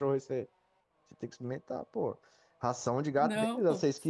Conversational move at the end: listening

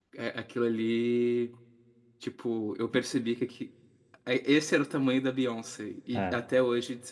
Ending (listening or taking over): listening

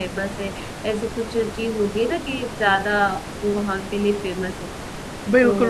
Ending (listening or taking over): taking over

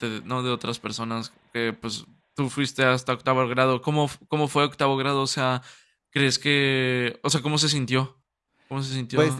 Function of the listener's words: taking over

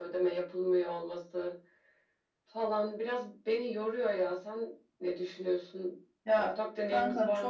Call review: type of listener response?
taking over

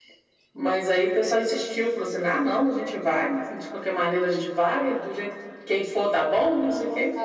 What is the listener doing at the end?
taking over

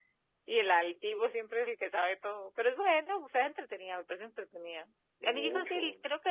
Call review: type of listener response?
listening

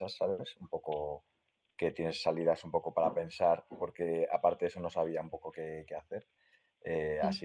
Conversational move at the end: listening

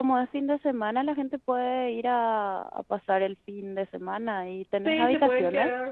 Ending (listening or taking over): taking over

